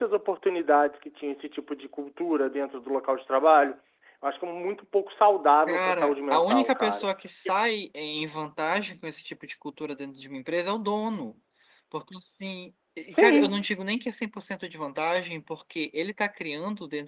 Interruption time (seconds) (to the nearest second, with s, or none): 6 s